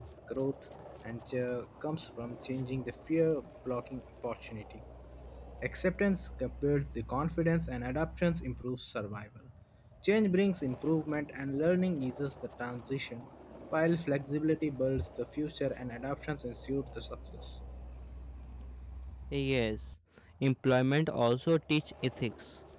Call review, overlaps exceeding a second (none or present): none